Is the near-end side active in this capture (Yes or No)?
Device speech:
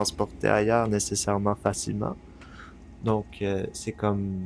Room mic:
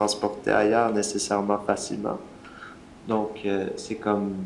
No